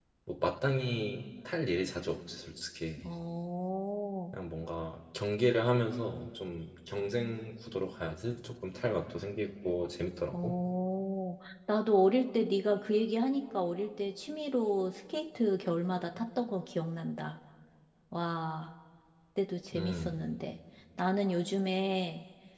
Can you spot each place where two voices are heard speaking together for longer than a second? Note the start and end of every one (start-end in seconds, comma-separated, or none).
none